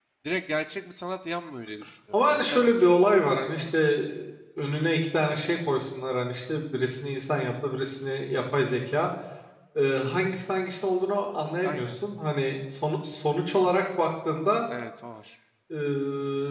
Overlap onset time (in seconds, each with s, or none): 2.1 s